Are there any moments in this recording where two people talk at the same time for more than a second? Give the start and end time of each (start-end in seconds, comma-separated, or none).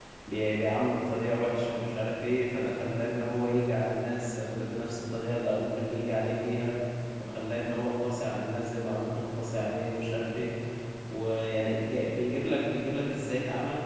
none